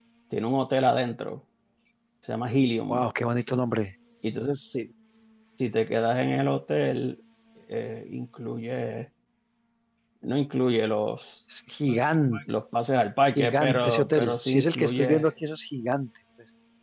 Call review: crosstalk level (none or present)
present